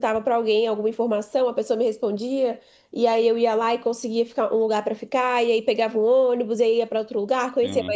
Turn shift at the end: No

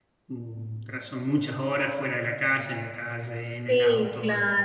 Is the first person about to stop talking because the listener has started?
Yes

